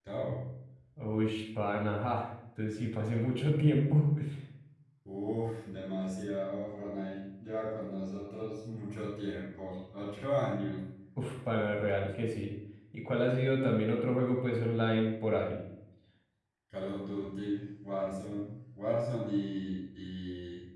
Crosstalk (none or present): none